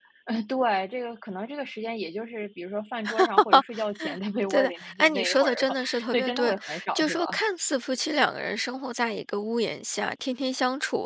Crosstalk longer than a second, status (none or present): present